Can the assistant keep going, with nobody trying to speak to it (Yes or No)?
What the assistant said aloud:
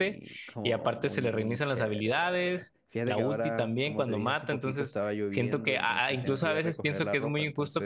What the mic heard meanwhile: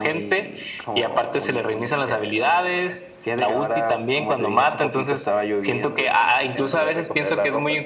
Yes